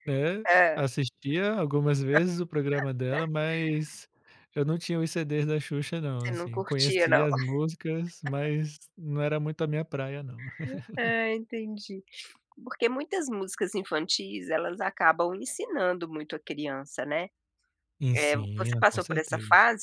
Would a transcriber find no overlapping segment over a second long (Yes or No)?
No